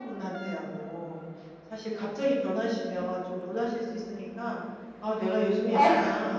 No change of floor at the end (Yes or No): Yes